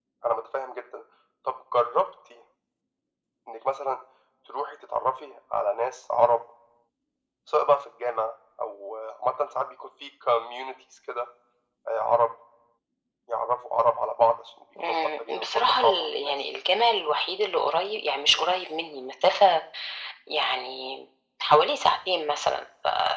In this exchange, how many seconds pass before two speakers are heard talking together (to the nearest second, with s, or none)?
15 s